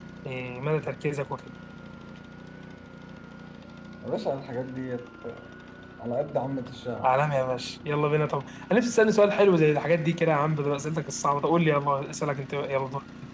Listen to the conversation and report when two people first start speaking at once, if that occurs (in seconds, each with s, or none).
none